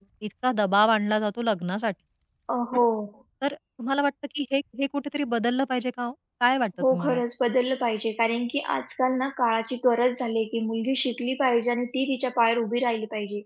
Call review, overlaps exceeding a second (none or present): none